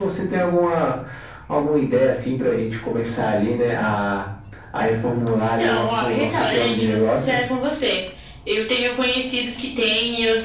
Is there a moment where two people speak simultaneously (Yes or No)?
Yes